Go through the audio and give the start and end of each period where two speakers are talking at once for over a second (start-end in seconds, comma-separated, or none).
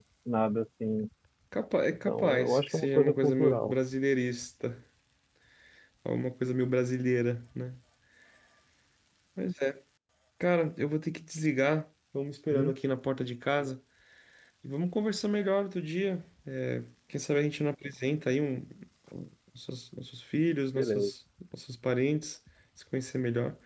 1.9-3.7